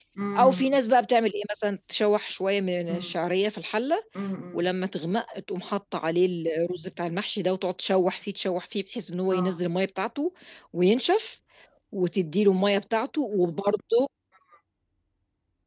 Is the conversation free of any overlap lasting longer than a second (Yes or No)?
Yes